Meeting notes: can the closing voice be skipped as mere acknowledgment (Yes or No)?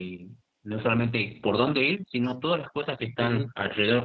Yes